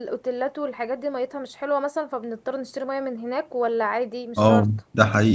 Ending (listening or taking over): taking over